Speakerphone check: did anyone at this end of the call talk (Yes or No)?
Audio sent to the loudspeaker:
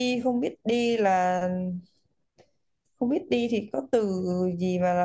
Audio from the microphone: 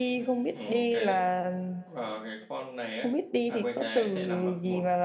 Yes